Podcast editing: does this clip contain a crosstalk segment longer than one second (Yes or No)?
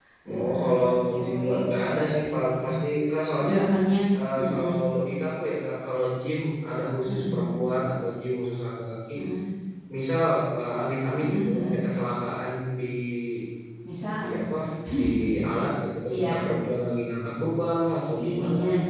Yes